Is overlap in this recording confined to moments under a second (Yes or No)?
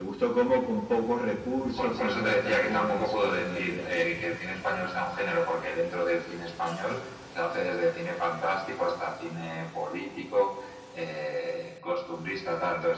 No